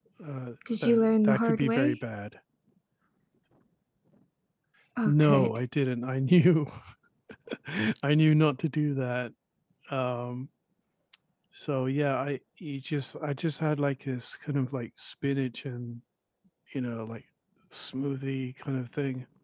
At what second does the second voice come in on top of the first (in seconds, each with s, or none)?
0.7 s